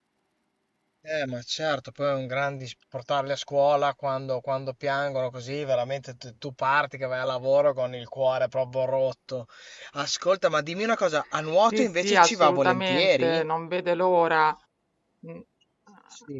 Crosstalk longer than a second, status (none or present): present